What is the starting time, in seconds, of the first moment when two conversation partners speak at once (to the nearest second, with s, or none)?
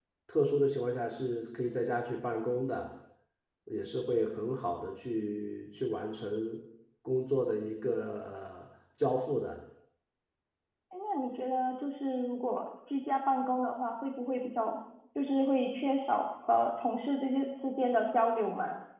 none